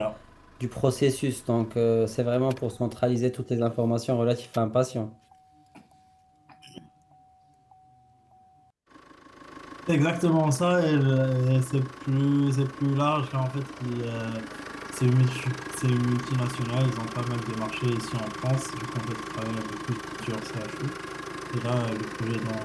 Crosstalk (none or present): none